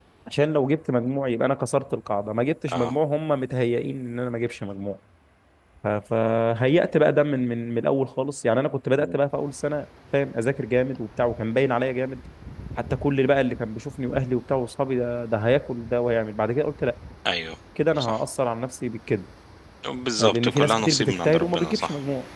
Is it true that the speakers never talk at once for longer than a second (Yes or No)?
No